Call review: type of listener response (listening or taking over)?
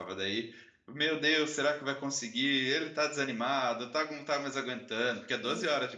taking over